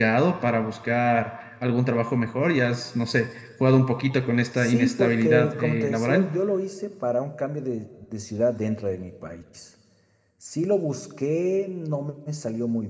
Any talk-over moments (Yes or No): Yes